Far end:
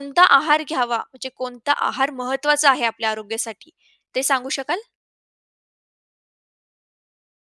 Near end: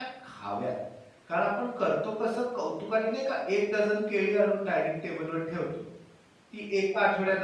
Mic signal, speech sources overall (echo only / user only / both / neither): user only